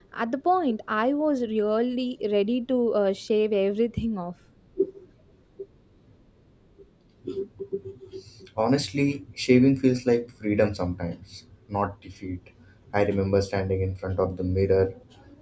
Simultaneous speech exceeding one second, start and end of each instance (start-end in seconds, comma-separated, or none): none